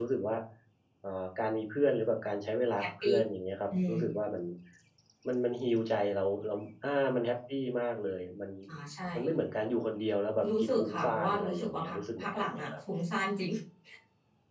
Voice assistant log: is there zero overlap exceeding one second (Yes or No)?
No